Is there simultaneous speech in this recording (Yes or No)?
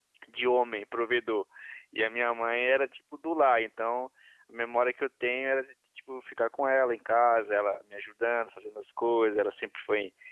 No